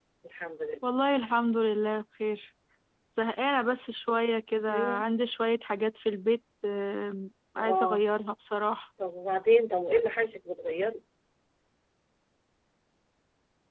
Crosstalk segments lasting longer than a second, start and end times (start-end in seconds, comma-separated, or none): none